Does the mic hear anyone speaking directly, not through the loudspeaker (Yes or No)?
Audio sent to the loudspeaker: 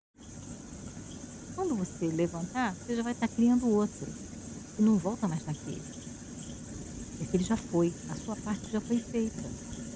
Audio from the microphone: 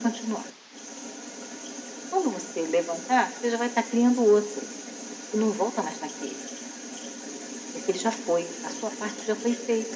No